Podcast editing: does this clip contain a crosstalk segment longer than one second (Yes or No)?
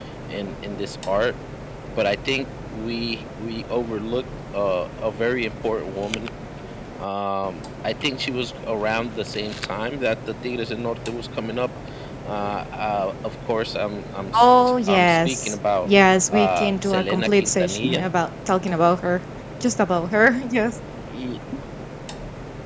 Yes